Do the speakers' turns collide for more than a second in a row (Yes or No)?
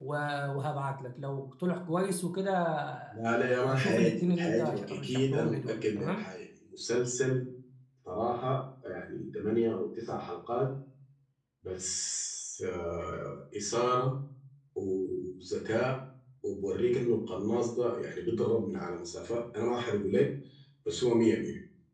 Yes